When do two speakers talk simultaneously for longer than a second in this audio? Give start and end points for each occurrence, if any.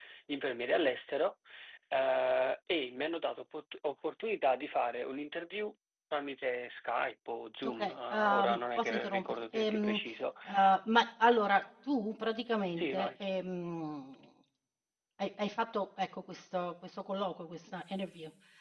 7.7-10.0

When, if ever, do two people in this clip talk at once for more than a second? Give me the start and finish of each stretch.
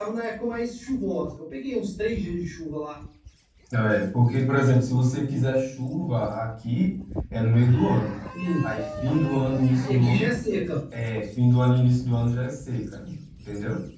none

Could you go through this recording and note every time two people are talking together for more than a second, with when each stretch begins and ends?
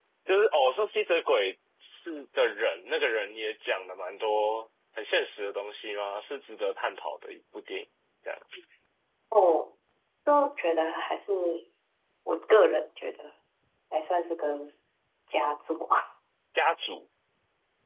none

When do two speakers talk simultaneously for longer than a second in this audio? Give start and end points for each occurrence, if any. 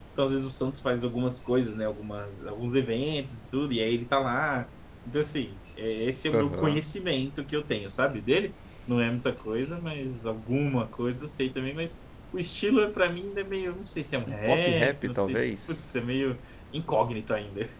14.3-15.9

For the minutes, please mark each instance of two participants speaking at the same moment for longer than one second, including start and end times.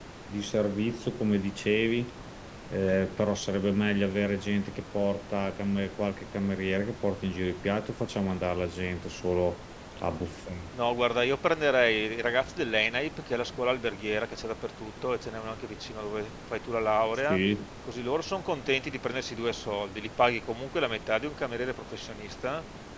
none

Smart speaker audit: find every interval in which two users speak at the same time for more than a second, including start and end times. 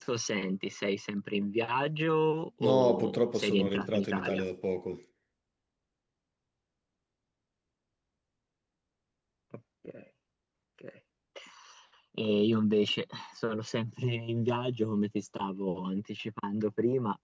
2.6-4.4

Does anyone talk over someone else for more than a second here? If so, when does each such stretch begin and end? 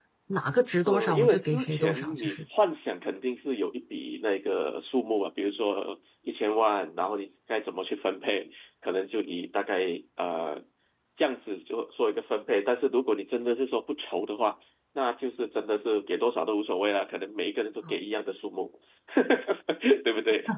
0.9-2.4

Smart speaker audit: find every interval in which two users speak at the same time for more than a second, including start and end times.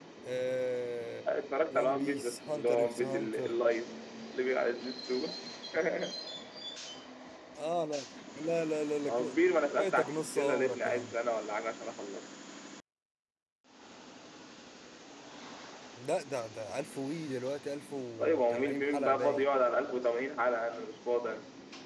1.7-3.5, 9.8-11.1, 18.2-19.4

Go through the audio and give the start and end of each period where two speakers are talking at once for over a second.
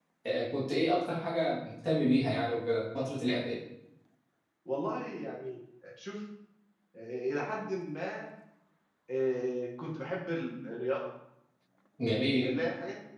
none

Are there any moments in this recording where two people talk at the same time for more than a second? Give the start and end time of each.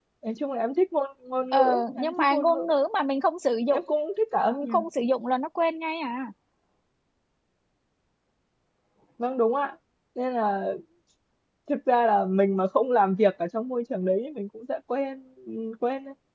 1.5-2.7

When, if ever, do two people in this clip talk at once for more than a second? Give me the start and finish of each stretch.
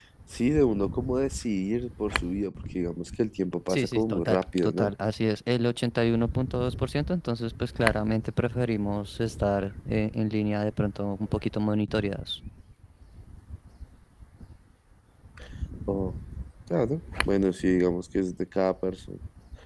3.7-4.9

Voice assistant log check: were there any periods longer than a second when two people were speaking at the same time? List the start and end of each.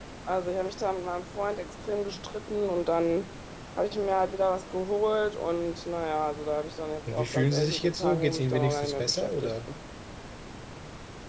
7.1-9.6

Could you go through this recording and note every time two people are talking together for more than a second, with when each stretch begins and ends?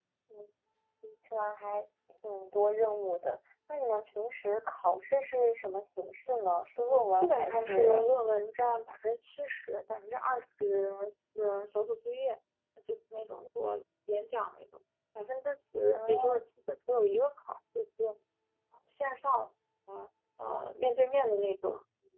6.8-8.1

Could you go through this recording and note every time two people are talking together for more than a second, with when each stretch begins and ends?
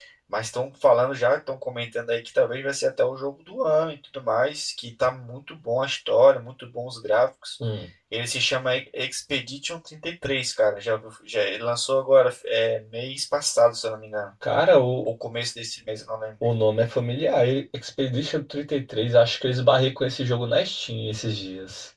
none

